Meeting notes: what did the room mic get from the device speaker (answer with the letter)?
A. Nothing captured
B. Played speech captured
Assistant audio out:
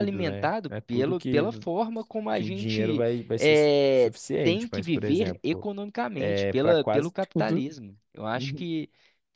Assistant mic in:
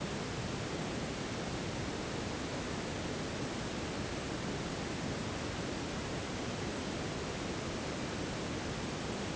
A